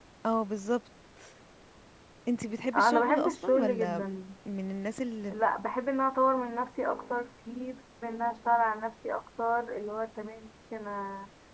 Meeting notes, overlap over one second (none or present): present